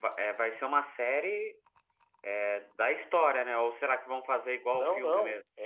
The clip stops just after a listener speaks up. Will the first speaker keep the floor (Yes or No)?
No